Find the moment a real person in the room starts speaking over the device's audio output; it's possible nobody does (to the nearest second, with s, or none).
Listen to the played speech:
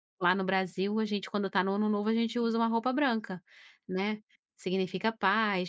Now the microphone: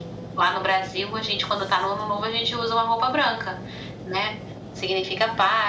none